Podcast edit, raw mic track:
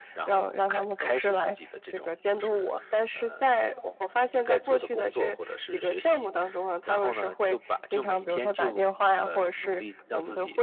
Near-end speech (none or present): none